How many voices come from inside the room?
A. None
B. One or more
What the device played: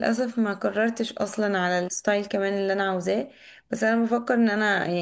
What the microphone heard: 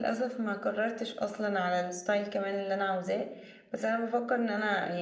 A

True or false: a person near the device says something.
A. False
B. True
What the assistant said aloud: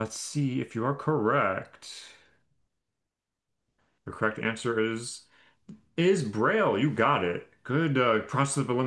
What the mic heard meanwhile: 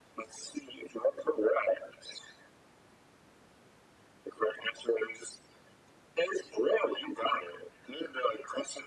A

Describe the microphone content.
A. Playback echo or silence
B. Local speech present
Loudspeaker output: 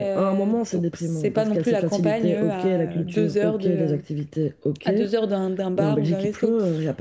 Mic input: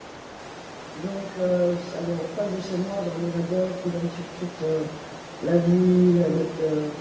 B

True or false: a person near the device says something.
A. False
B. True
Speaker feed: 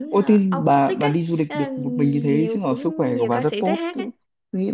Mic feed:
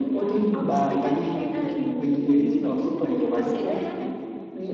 B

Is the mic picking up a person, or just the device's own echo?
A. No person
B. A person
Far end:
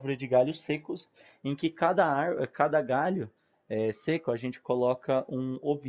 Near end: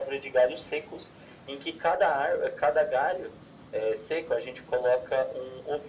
A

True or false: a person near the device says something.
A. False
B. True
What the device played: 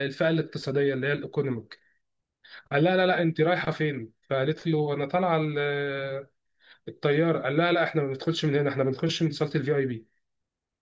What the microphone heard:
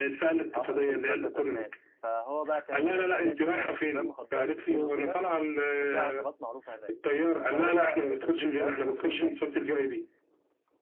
B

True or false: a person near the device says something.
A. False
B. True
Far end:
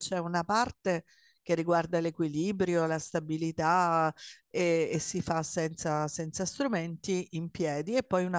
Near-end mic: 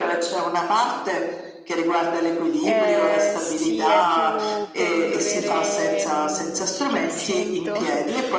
B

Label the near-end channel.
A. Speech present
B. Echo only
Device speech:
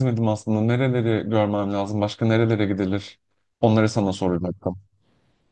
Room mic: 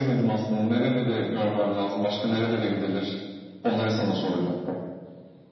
B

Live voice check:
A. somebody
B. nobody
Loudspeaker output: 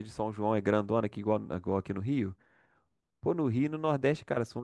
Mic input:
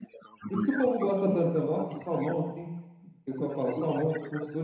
A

